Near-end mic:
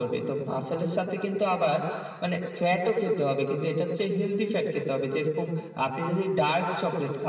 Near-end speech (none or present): none